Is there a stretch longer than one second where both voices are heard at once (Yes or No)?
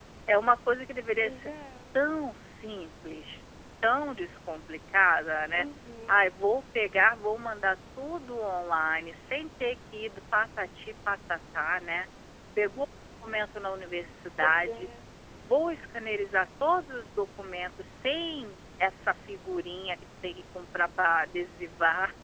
No